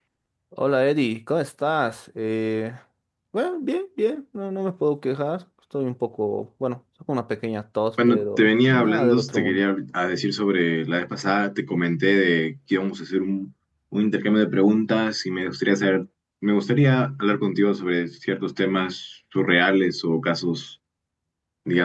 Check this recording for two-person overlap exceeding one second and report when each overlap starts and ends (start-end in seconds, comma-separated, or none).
8.1-9.6